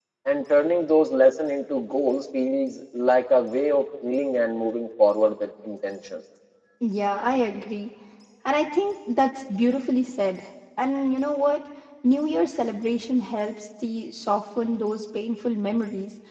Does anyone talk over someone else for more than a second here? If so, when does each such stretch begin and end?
none

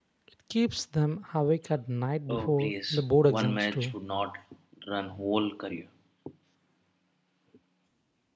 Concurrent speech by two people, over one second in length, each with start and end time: 2.3-4.0

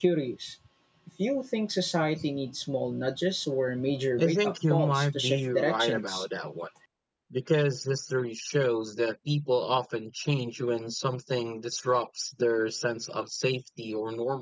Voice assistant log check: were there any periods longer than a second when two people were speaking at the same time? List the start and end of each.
4.2-6.2

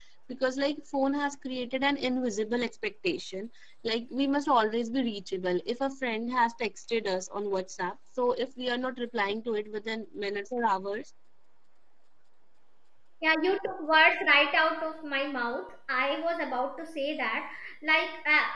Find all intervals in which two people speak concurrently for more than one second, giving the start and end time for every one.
none

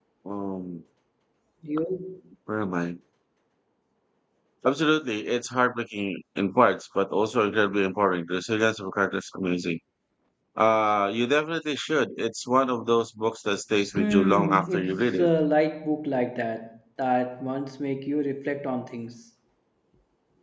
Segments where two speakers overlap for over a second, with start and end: 14.0-15.3

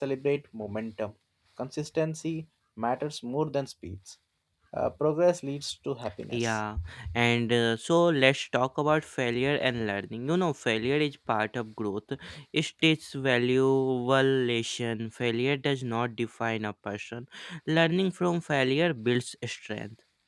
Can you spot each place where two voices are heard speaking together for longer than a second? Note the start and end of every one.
none

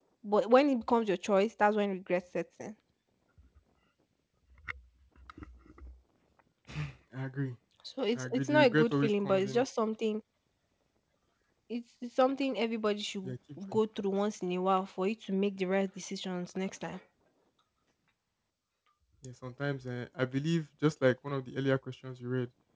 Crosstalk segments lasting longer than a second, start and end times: 8.2-9.6

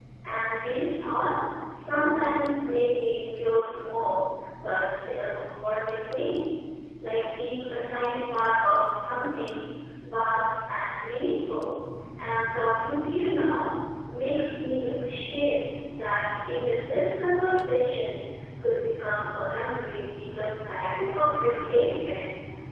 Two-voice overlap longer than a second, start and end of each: 20.3-22.0

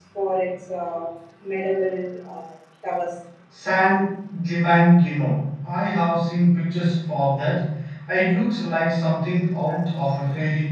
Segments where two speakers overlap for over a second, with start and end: none

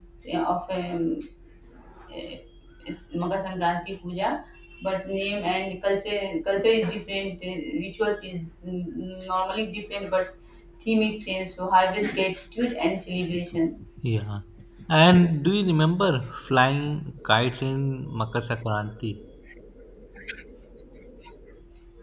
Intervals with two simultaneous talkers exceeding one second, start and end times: none

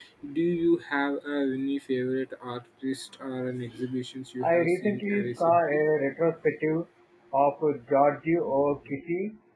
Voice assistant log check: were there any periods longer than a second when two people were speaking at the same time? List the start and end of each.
4.4-5.8

